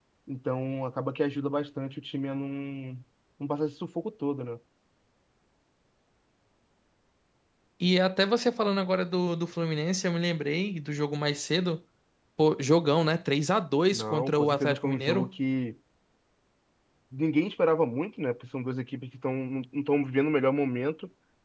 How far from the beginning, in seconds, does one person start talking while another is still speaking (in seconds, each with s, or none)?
13.9 s